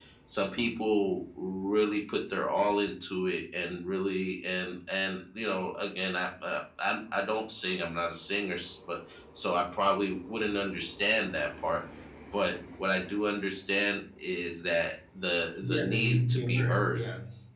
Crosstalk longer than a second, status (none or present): present